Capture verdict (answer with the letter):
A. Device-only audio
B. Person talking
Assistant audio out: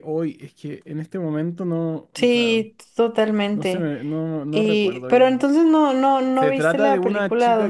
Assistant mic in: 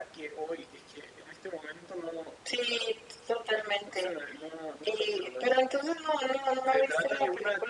A